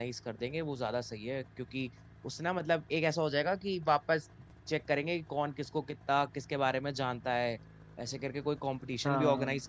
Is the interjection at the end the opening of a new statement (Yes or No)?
No